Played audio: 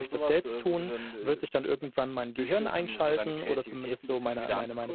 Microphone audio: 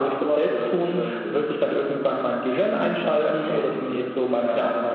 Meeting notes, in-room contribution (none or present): none